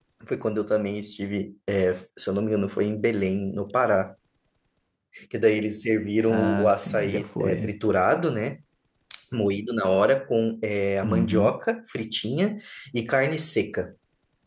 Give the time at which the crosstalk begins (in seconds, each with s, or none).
6.3 s